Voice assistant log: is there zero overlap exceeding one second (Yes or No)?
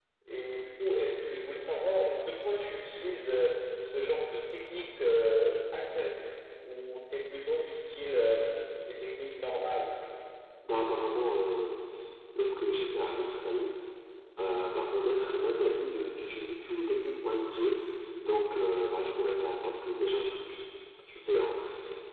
Yes